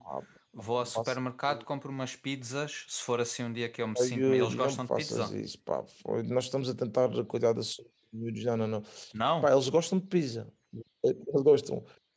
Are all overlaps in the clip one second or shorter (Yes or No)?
No